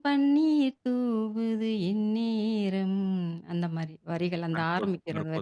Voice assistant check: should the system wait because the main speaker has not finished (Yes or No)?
No